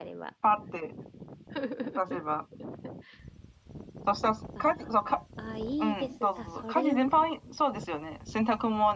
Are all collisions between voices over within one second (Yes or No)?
No